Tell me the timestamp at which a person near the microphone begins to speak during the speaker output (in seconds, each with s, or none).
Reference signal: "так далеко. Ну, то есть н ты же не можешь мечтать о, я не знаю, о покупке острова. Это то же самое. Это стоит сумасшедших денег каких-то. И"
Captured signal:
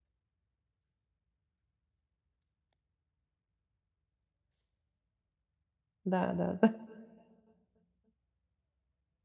6.0 s